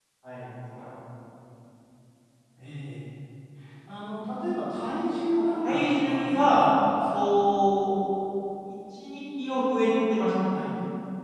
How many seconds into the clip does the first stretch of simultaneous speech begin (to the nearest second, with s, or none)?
5 s